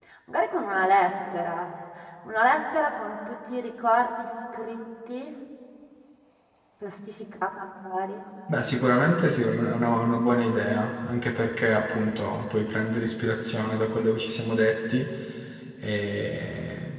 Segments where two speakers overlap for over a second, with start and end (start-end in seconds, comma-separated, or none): none